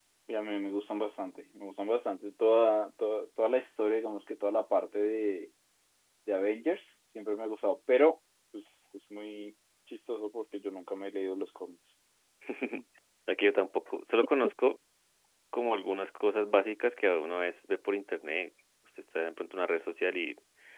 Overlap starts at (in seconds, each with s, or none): none